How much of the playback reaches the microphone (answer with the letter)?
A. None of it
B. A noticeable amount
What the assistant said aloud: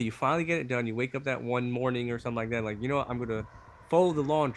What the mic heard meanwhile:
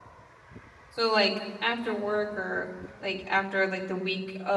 A